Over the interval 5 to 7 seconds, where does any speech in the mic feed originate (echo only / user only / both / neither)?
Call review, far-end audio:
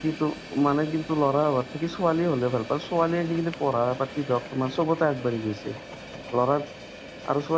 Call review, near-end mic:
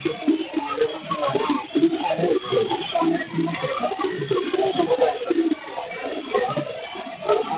echo only